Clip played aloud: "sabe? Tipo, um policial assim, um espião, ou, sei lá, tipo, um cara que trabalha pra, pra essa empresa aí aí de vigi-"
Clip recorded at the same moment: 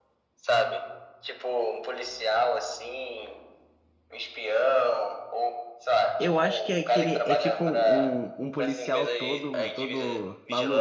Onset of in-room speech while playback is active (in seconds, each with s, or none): 6.2 s